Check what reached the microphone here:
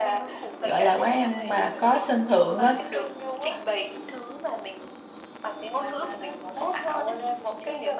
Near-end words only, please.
gọi là quán ăn mà có sân thượng á

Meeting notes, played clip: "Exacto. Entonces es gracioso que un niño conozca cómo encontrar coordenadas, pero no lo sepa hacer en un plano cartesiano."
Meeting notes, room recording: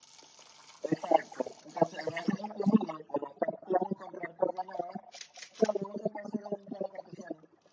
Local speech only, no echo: none

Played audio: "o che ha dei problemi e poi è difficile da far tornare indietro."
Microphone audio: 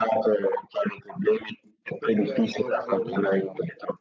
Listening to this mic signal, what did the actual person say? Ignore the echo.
tu che laptop usi?

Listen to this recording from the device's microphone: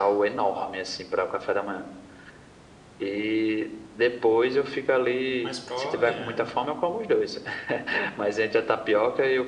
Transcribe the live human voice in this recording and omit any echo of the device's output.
Mas prove, né?

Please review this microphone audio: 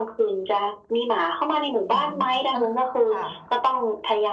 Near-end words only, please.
อืมแล้วค่ะ

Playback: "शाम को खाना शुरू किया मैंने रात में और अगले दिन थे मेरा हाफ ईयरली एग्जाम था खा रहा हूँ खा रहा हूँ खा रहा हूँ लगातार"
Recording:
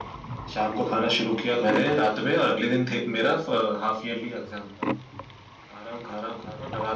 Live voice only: none

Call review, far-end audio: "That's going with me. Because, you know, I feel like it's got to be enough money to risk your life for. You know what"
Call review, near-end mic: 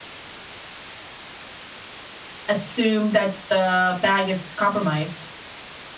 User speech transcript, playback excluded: assume that the bag is compromised.

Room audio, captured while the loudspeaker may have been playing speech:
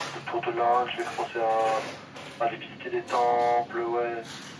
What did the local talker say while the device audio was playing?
none

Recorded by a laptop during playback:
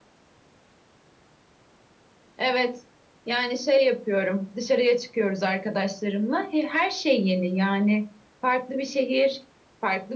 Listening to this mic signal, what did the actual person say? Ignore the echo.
none

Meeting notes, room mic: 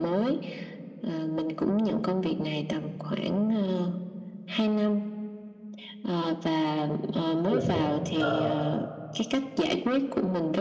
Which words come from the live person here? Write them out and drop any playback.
khá là tốt Ờ,

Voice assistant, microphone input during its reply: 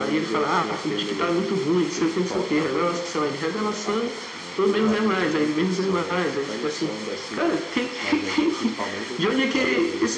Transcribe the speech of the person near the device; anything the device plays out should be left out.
none

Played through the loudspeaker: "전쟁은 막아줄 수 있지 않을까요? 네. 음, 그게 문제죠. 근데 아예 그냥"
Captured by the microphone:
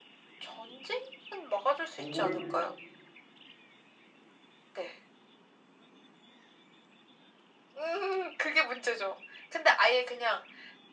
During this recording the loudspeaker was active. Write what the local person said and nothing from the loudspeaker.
정보를

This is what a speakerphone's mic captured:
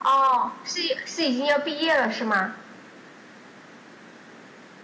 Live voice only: none

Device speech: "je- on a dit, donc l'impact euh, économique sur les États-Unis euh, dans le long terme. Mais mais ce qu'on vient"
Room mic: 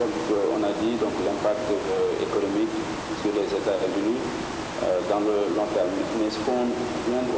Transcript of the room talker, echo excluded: none

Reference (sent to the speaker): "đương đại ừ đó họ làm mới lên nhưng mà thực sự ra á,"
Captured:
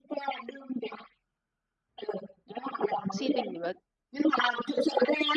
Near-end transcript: si tình thì là

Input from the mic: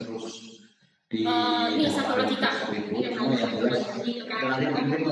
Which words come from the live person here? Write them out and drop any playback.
eh ini satu lagi Kak.

